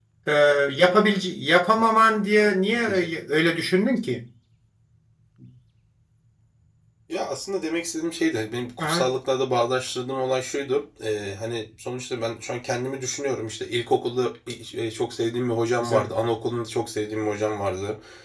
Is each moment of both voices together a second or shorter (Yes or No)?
Yes